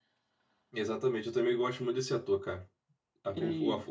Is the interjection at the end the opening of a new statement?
No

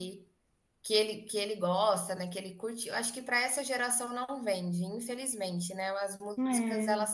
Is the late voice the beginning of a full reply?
No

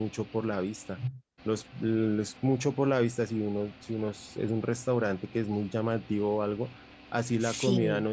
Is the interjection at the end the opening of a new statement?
No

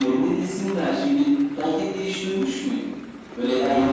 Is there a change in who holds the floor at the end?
No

